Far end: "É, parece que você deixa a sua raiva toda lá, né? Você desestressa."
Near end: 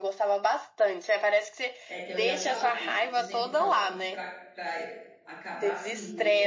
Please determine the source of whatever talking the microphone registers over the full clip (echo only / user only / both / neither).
both